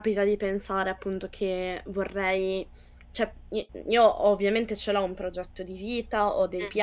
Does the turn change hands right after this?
No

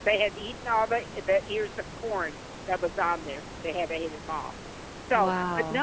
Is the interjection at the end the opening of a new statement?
No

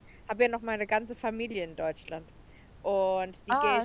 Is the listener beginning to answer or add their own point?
No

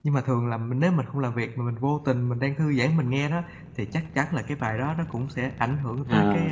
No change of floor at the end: No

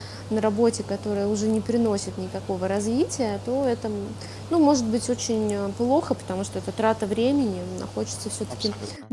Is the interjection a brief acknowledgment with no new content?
Yes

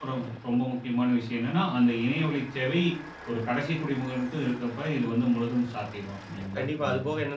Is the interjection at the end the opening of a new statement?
Yes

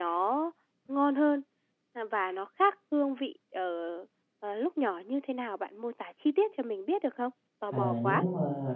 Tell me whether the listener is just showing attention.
No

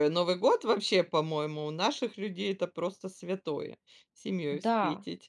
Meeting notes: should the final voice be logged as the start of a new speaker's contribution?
Yes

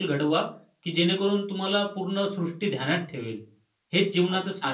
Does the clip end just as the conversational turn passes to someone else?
Yes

